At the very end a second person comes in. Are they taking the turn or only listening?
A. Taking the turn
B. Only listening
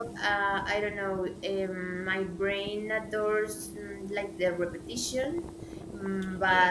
B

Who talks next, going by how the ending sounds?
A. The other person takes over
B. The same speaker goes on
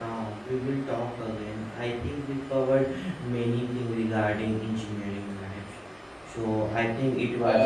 A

